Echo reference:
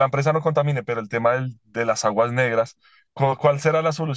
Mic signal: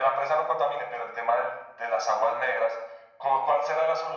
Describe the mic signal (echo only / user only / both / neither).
echo only